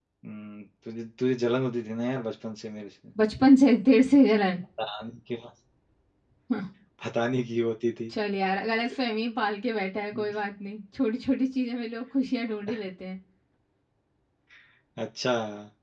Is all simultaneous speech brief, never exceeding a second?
Yes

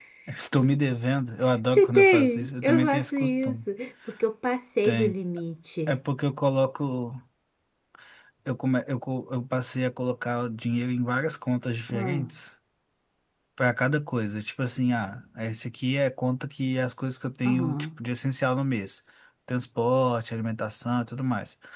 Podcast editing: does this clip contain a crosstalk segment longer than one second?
Yes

